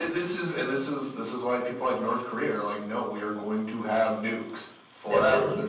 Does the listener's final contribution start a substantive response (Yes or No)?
No